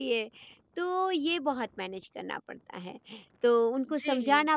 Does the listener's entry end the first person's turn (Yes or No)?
No